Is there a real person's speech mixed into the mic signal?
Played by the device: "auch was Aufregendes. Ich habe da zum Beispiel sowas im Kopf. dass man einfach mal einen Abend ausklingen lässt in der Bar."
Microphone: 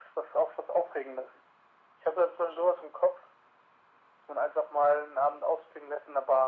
No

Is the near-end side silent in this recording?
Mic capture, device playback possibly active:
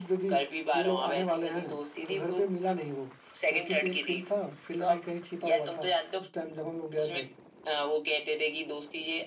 Yes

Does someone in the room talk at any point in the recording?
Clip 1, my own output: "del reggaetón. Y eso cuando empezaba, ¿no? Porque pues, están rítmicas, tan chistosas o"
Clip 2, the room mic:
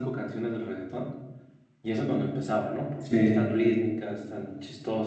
Yes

